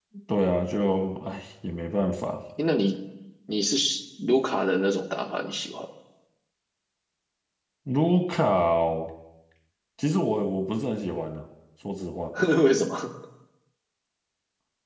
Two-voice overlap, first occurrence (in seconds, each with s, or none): none